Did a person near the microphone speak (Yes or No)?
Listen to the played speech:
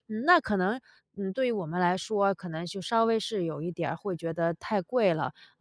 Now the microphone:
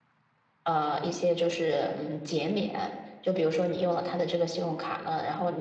Yes